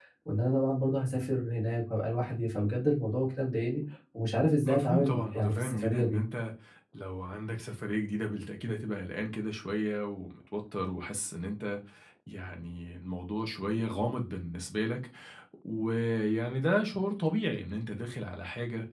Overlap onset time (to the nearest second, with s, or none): 5 s